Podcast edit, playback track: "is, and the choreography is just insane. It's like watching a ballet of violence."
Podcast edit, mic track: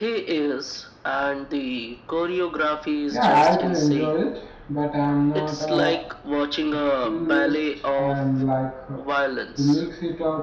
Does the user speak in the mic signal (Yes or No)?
Yes